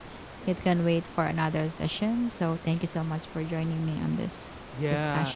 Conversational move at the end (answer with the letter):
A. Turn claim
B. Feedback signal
A